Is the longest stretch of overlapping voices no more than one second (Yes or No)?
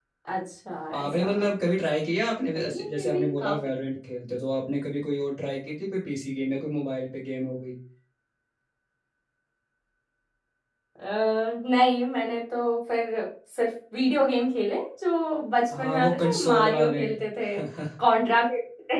No